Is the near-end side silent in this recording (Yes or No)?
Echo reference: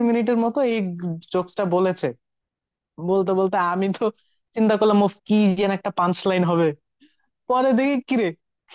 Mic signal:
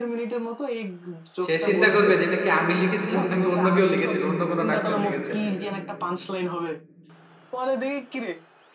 No